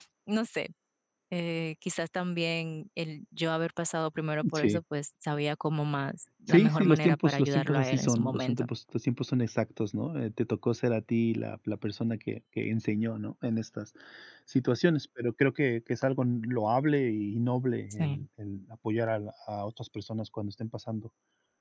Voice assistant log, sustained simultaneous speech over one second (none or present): present